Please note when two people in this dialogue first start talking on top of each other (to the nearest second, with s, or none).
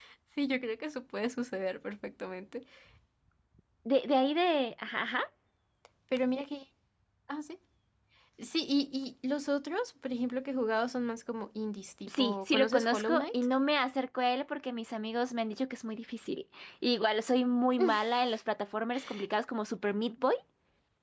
12 s